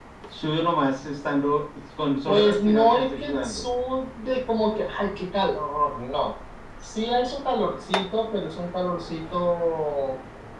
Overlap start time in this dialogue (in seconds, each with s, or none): 2.3 s